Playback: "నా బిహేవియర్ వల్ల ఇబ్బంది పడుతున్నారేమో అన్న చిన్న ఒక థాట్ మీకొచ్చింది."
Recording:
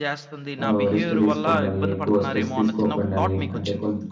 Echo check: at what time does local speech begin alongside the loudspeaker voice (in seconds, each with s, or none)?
0.6 s